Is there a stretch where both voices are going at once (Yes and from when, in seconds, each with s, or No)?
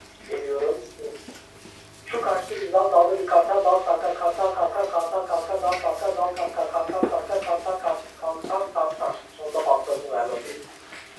No